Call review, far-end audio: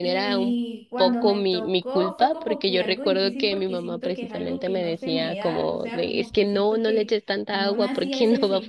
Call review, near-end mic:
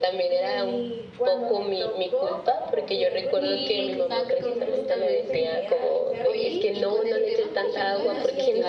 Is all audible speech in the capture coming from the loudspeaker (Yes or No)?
No